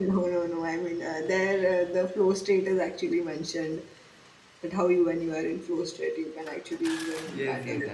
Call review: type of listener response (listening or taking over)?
taking over